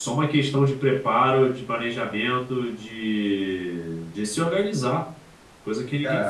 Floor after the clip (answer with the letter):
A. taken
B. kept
A